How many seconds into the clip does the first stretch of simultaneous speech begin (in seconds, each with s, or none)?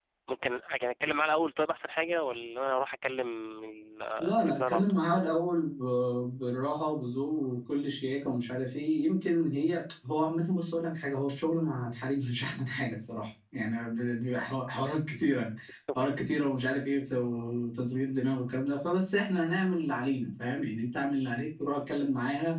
4.2 s